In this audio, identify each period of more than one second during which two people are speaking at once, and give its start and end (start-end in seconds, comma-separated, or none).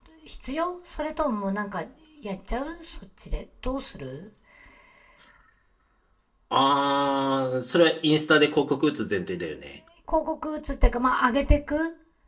none